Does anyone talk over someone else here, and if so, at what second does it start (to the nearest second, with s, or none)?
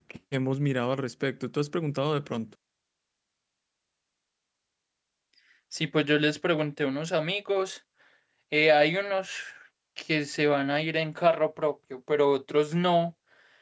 none